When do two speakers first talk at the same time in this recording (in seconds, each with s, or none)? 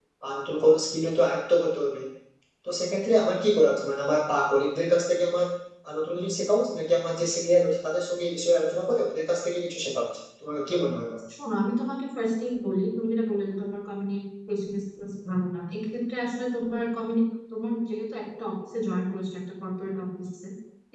none